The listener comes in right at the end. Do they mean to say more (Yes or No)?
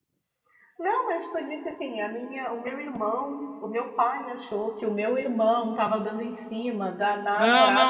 Yes